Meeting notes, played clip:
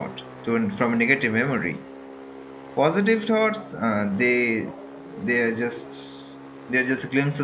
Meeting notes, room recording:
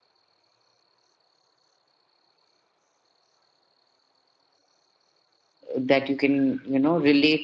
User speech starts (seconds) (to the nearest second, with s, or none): 6 s